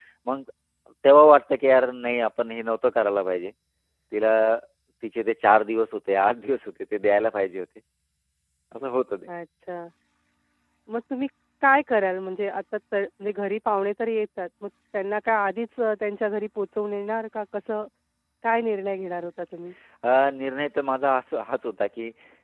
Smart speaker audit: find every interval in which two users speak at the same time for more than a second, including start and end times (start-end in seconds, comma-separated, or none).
none